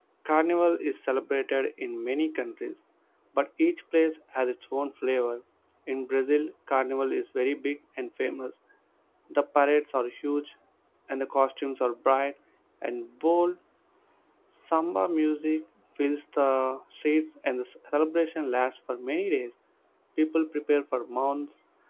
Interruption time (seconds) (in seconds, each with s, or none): none